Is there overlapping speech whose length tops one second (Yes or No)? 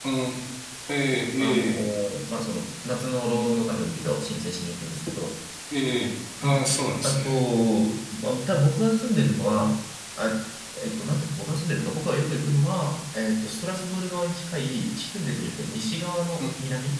No